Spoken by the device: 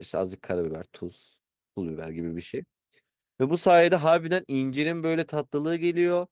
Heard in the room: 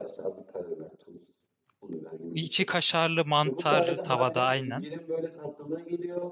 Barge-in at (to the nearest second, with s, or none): 2 s